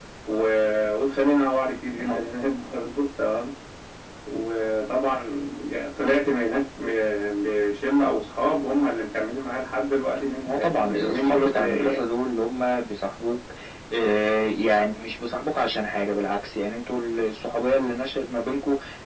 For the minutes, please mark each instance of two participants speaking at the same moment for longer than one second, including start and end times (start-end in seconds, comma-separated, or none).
10.5-12.1